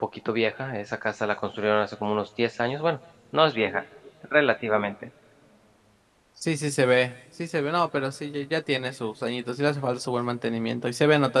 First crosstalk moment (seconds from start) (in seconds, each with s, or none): none